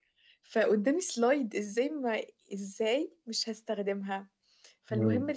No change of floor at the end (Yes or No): Yes